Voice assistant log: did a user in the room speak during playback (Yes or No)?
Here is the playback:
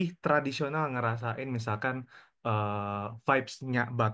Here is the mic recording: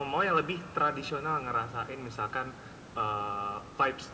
No